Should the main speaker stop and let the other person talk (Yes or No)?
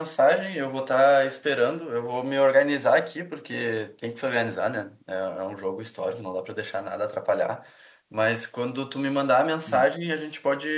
No